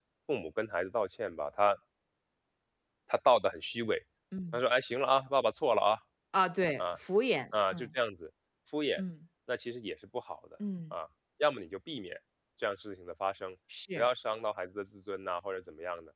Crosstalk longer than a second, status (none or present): none